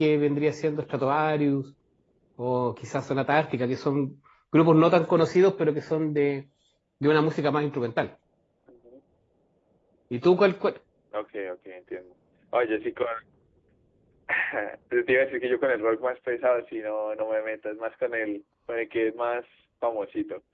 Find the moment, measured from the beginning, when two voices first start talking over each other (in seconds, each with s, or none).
none